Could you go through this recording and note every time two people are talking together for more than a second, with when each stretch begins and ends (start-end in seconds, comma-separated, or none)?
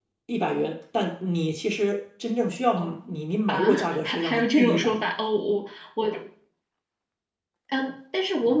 3.5-5.1